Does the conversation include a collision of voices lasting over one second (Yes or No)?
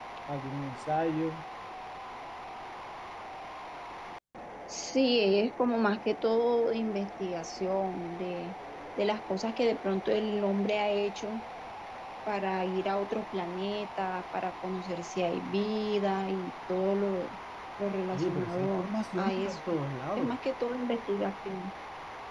Yes